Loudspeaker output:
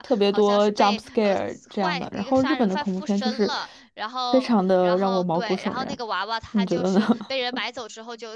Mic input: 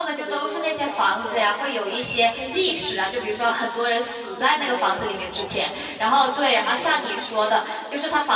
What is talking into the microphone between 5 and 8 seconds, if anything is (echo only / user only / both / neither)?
both